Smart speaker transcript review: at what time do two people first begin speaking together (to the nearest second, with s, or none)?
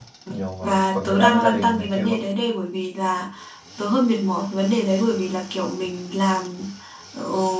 1 s